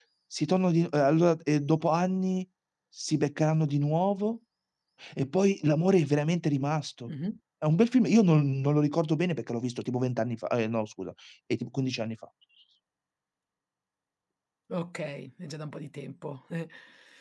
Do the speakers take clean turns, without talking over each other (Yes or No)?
Yes